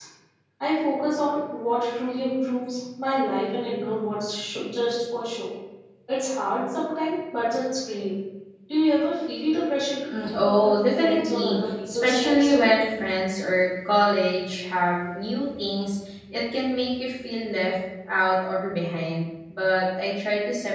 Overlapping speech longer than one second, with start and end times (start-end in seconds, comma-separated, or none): 10.1-12.7